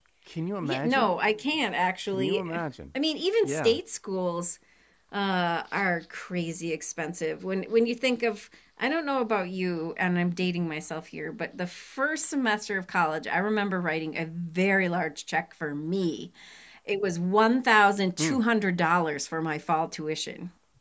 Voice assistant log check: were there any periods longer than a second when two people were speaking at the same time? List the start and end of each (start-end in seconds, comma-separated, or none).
none